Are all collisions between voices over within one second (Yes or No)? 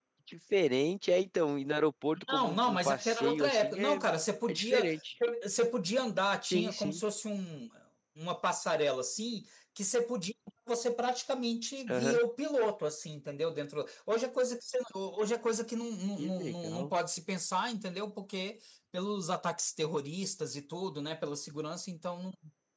No